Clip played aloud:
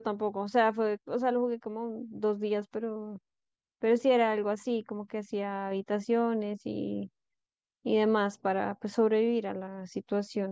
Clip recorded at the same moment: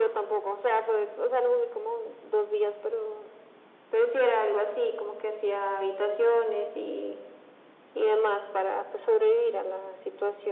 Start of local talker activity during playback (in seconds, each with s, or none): none